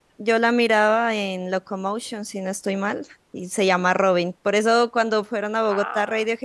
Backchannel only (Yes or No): Yes